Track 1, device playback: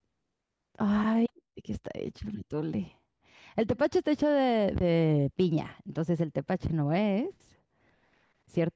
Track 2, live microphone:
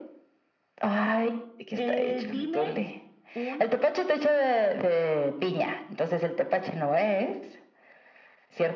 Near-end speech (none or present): present